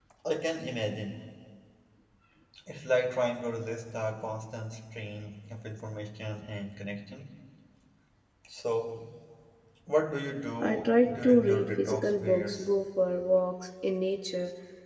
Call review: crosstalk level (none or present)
present